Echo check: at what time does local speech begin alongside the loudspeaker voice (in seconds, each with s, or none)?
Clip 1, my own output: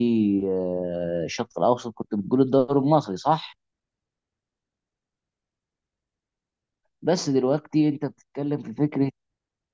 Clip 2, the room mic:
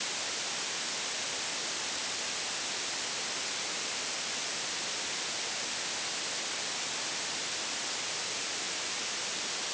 none